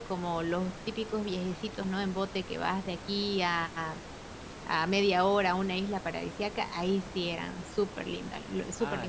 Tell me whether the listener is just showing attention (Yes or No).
No